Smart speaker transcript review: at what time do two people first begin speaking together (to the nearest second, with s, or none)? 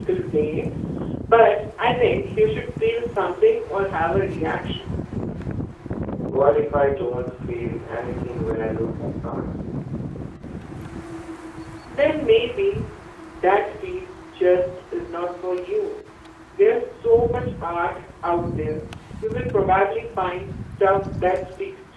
none